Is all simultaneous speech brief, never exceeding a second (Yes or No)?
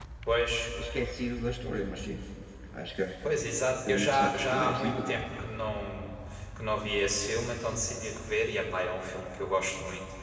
No